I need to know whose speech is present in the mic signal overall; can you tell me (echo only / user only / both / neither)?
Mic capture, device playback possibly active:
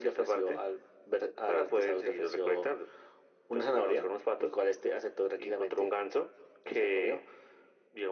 echo only